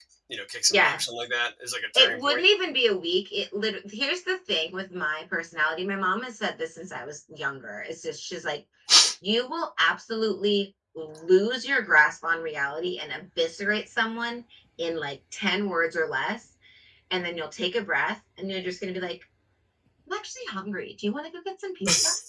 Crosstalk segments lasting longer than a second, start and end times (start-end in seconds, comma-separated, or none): none